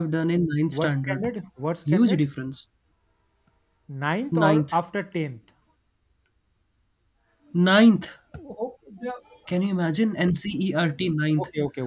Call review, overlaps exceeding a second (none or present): none